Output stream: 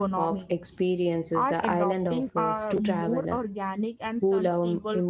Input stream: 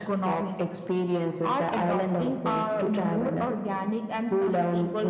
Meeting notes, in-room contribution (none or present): none